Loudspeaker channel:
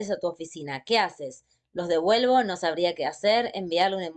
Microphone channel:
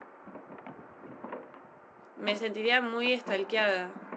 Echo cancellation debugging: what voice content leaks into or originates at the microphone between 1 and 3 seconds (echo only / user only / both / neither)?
user only